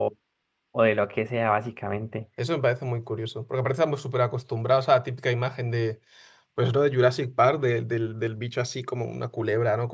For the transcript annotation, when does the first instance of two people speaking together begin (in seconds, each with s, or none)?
none